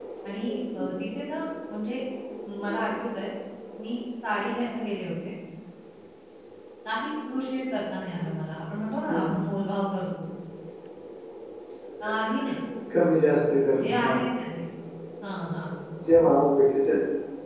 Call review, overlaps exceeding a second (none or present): none